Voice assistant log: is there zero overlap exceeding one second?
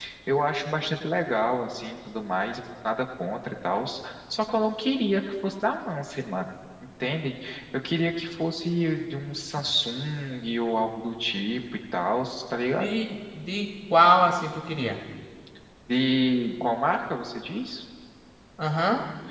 Yes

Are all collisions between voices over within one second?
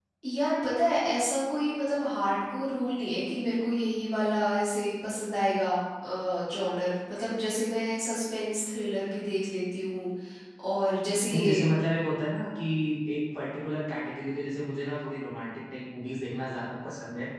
Yes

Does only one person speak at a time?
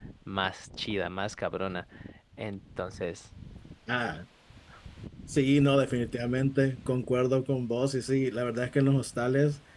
Yes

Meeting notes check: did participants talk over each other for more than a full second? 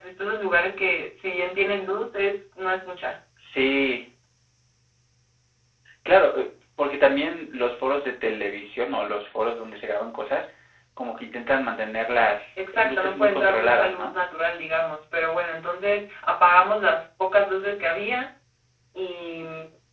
Yes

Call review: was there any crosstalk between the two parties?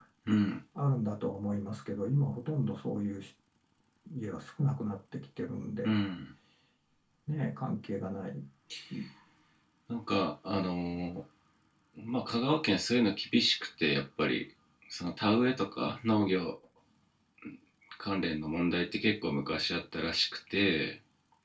No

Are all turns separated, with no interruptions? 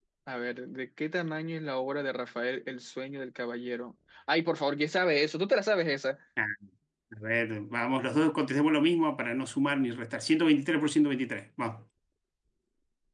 Yes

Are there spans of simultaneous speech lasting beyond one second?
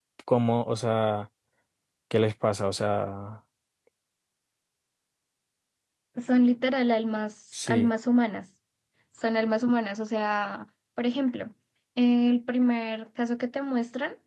No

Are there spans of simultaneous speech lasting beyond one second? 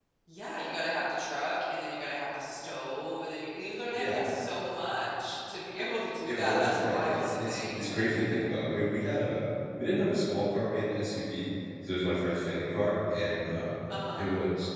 Yes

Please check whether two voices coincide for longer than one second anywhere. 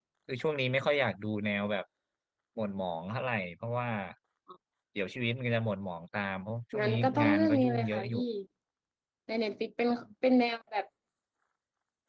Yes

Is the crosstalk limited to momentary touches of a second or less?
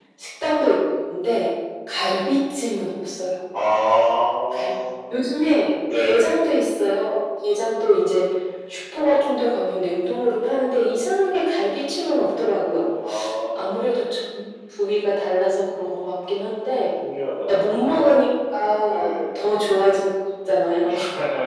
Yes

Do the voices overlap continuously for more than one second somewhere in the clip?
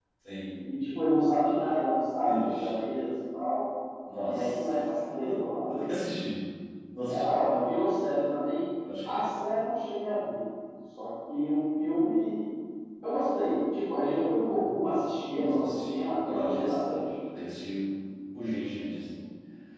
Yes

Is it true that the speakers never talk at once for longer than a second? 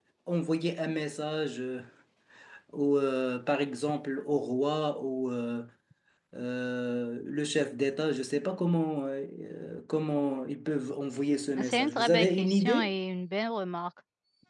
No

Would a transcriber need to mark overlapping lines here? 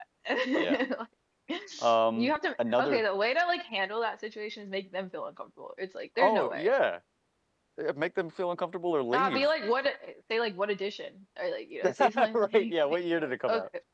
Yes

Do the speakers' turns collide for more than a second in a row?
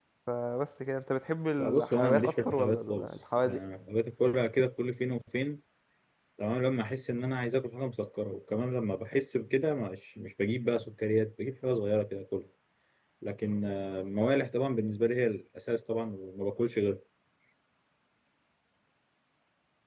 Yes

